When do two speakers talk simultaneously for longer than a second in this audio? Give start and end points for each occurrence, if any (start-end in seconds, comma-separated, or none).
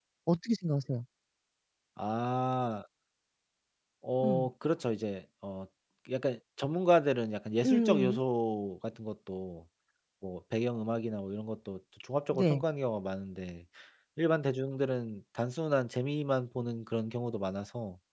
none